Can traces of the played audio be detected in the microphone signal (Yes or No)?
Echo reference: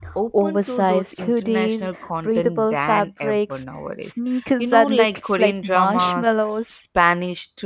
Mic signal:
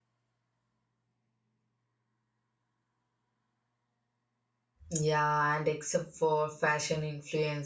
No